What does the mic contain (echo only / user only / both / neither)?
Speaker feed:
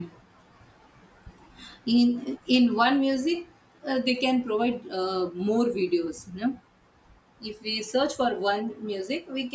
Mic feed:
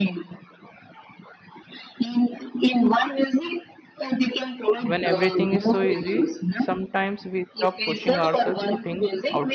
both